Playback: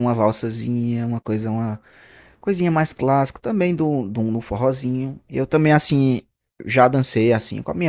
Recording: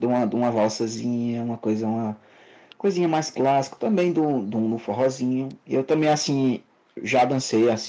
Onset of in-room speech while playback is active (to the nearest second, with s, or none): none